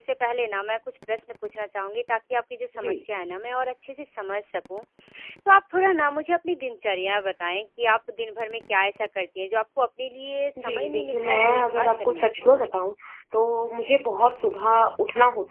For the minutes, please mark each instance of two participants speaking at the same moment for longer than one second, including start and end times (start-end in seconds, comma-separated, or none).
10.6-12.7